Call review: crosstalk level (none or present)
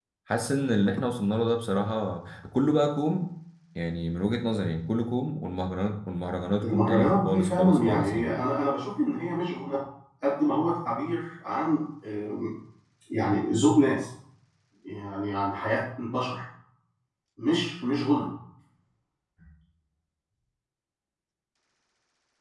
present